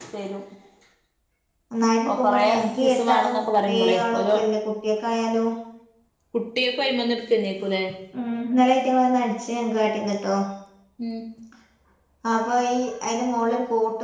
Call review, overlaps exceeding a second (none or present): present